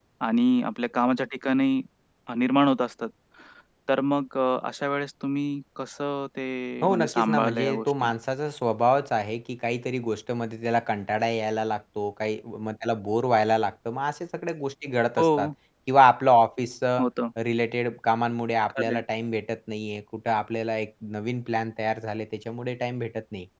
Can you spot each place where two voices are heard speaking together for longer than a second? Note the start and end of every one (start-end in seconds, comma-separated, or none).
6.8-8.1